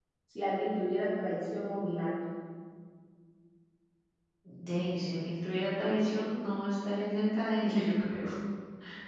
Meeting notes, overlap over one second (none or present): none